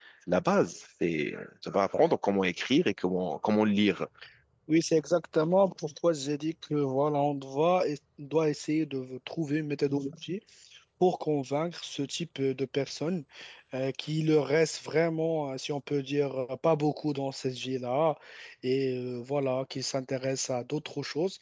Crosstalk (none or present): none